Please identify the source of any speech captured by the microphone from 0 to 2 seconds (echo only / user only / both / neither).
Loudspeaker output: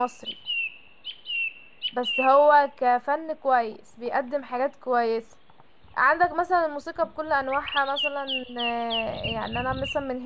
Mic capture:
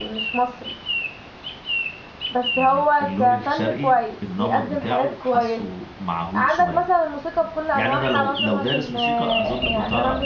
echo only